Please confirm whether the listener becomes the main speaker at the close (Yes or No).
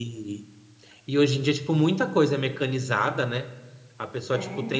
No